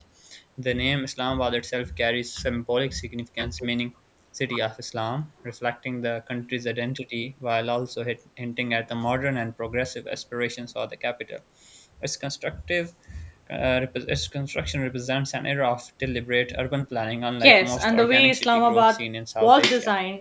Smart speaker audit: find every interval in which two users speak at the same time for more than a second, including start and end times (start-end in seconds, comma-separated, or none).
17.4-19.0